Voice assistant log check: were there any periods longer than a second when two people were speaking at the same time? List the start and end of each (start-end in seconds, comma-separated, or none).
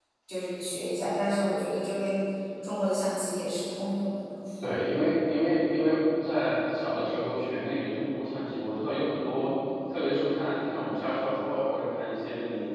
none